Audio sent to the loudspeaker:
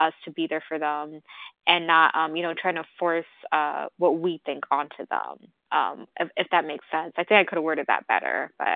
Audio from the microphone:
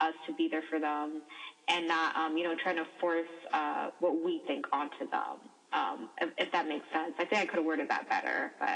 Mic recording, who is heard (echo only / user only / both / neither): echo only